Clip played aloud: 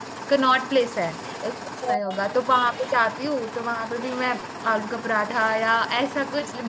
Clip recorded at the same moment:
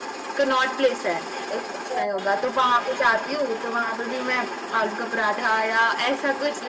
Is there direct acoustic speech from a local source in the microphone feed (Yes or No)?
No